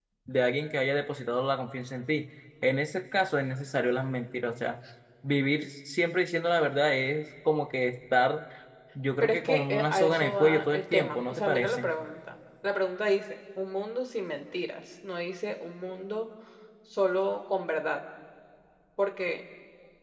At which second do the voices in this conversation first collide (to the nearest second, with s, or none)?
9 s